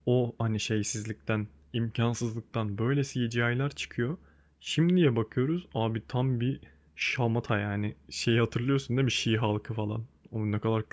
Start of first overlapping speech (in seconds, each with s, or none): none